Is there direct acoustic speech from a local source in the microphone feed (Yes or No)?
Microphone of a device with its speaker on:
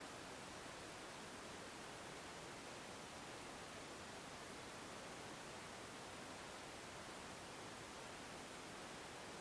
No